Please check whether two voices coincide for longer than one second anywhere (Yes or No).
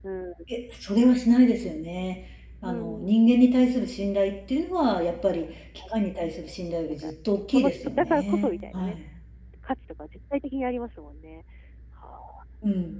Yes